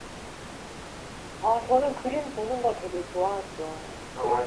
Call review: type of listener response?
listening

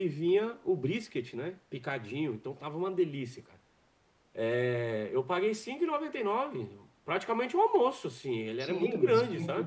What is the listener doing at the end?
taking over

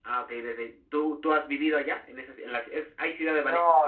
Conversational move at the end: taking over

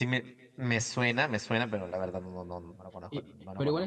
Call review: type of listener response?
taking over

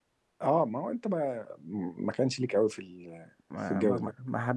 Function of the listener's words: taking over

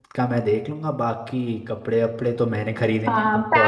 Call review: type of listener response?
taking over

